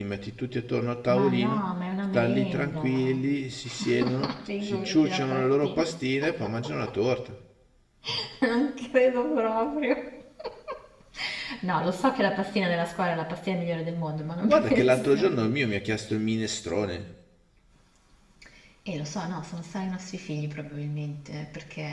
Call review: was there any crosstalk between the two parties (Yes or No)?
Yes